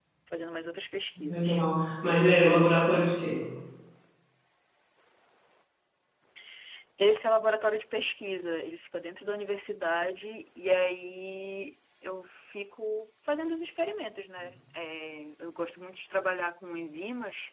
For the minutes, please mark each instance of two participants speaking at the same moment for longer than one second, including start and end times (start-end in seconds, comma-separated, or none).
none